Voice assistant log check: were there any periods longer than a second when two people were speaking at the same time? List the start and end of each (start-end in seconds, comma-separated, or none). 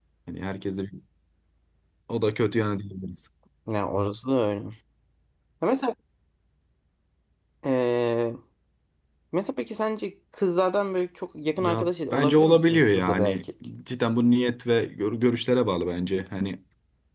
11.6-13.4